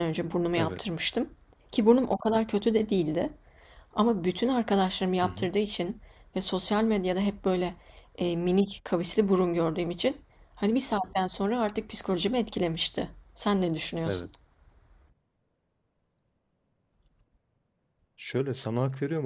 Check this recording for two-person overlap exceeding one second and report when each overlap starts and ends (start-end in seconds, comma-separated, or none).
none